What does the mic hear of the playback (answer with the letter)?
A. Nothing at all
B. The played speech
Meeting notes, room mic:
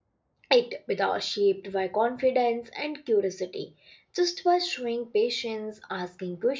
A